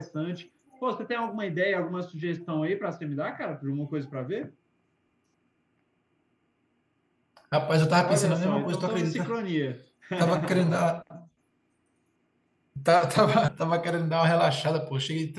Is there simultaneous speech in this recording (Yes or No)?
Yes